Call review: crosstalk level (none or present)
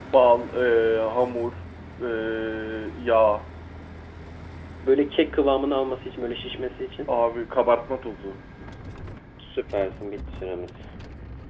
none